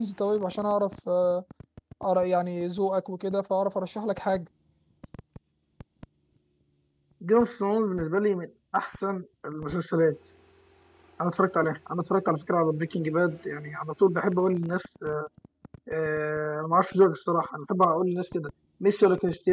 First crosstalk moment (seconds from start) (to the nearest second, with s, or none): none